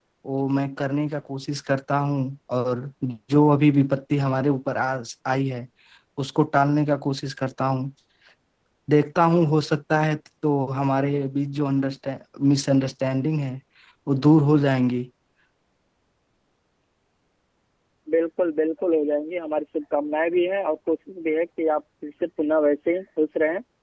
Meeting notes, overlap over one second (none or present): none